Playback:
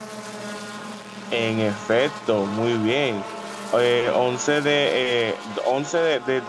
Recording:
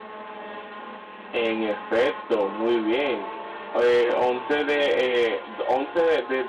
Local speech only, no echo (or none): none